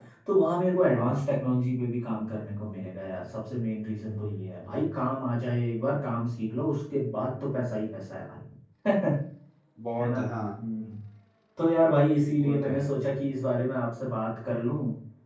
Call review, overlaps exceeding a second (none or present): none